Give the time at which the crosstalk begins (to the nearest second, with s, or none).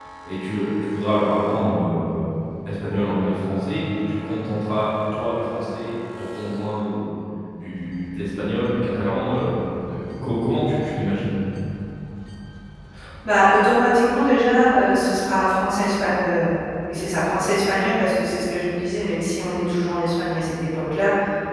none